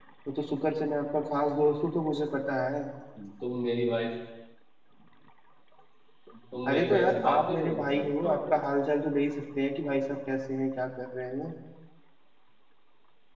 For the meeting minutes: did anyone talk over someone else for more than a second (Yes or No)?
Yes